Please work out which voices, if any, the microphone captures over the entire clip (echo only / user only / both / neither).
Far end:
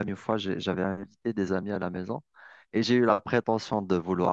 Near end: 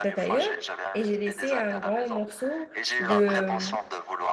both